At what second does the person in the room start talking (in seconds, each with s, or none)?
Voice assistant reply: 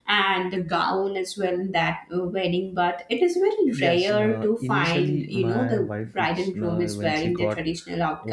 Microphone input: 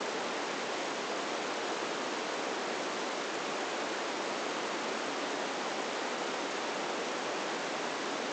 none